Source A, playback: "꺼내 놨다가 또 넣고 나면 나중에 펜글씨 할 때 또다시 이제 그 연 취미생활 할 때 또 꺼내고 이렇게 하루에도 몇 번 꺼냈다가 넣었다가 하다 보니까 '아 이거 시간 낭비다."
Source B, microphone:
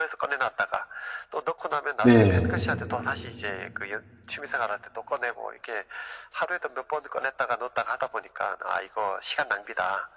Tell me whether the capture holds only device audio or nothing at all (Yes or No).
No